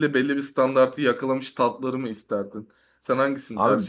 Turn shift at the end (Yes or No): Yes